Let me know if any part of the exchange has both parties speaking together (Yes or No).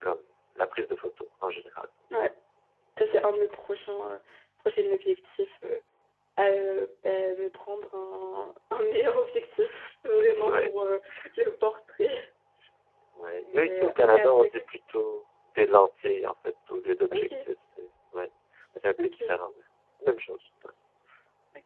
Yes